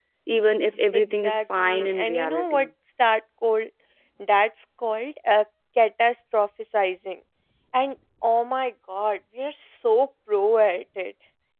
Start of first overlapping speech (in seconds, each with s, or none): 0.9 s